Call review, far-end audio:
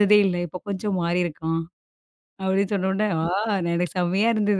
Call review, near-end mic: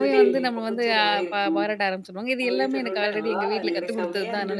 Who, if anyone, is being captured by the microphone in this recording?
both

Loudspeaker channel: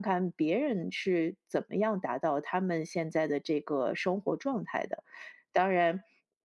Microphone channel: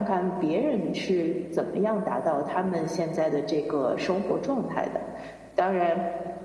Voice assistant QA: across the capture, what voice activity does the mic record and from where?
echo only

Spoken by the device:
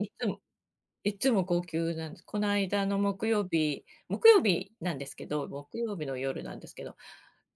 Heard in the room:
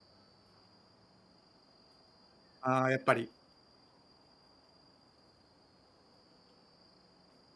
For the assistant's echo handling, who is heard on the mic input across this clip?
user only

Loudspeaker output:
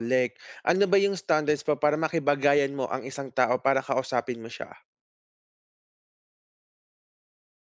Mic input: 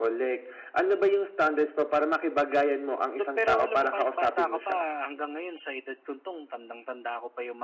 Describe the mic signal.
both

